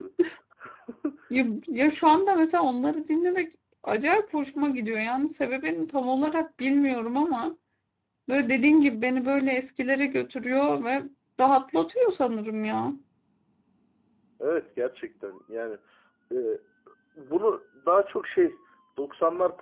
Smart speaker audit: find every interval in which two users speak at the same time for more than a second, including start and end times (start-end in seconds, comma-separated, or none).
none